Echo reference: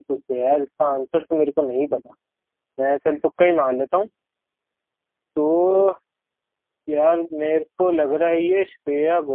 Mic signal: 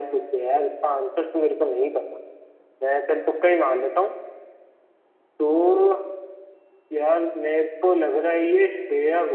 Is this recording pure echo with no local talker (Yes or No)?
Yes